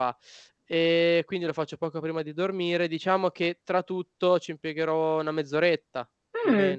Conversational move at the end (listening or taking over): taking over